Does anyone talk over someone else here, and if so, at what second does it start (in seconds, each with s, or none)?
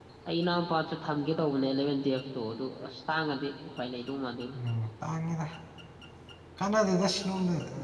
none